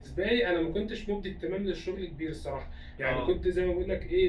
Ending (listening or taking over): listening